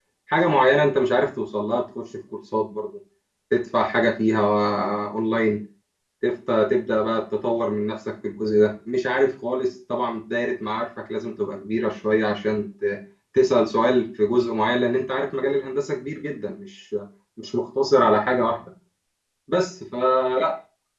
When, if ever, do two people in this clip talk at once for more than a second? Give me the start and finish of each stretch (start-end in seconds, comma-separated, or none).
none